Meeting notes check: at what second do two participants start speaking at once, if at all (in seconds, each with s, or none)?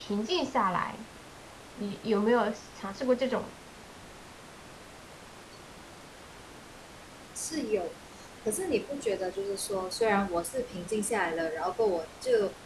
none